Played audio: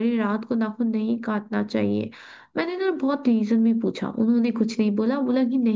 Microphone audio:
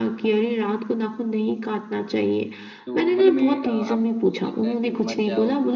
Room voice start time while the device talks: 3 s

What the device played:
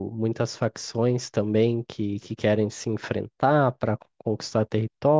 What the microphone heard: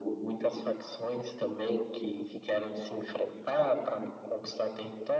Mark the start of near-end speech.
none

